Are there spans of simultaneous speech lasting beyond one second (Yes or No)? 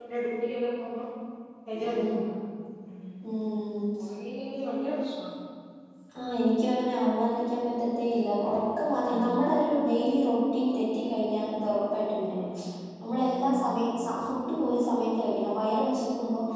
No